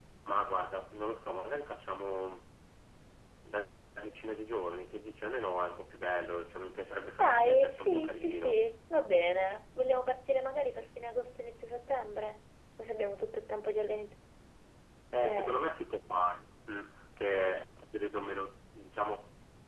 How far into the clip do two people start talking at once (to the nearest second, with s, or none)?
7 s